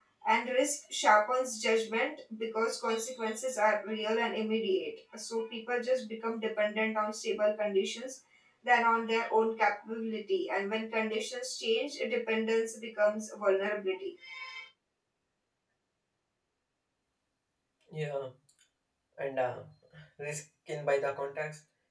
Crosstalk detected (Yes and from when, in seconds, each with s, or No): No